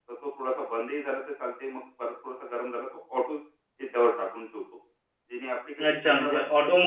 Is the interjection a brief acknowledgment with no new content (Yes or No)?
No